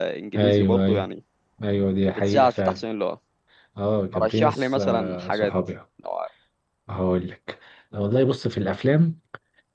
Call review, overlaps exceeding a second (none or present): present